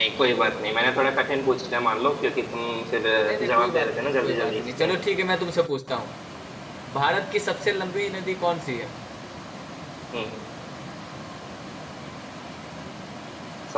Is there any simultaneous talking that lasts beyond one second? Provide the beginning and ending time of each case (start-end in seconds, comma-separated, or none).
3.2-4.9